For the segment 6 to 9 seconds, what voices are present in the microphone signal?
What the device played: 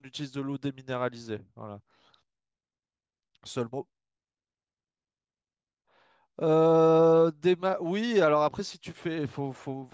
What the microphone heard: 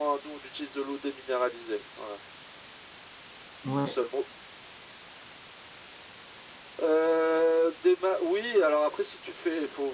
echo only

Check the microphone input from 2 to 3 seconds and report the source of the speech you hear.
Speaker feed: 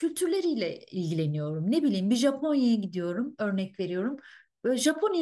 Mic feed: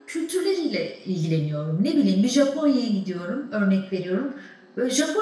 echo only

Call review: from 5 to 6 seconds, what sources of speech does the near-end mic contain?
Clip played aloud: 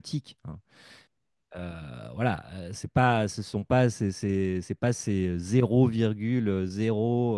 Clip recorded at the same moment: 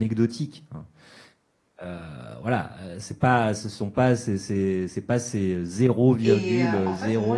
echo only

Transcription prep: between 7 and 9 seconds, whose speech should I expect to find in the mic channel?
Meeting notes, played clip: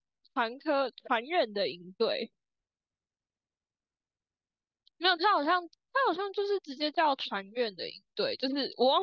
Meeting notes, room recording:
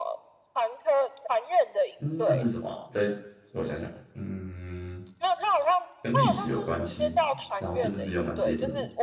both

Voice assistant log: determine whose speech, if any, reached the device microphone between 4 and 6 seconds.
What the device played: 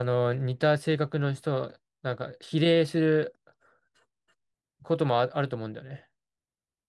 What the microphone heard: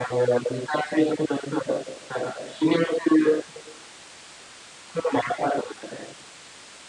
echo only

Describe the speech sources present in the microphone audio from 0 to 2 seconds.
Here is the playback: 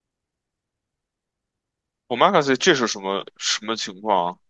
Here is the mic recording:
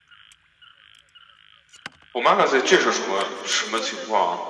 neither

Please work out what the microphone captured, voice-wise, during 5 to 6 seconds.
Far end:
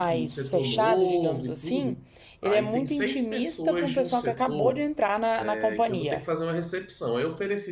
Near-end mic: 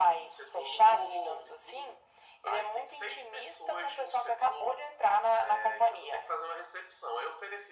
echo only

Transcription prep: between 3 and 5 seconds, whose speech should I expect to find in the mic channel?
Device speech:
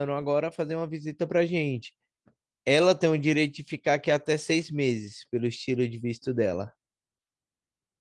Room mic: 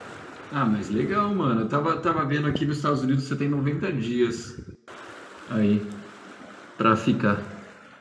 user only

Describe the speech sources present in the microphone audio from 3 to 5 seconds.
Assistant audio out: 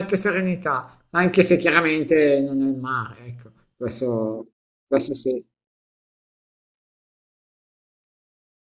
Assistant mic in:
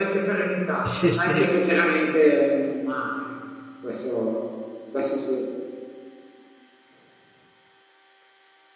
echo only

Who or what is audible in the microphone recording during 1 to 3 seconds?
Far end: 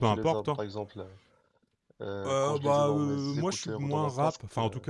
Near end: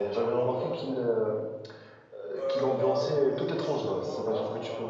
both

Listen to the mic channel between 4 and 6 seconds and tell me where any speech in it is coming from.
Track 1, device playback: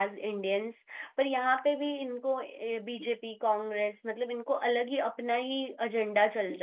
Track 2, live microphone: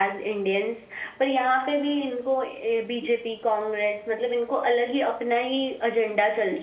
echo only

